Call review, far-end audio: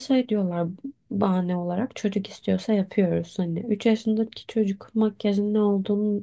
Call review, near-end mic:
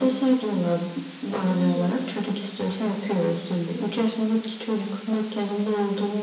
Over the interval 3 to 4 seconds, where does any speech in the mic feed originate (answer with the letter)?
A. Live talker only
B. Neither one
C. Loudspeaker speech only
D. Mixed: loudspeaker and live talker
C